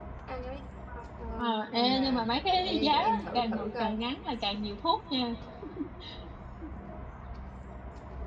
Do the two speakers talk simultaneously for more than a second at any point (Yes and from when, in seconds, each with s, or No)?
Yes, from 1.4 s